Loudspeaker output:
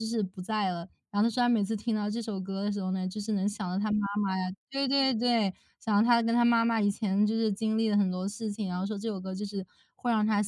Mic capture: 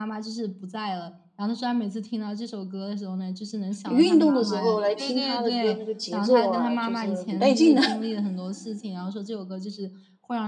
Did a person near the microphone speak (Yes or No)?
Yes